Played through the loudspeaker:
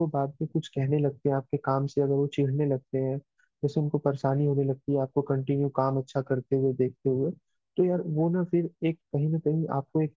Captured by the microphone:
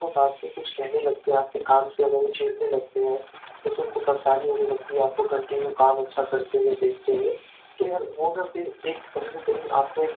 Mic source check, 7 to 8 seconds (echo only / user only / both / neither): echo only